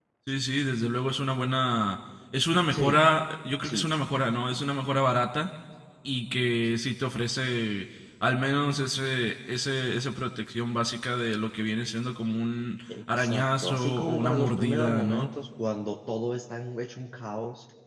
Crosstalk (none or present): present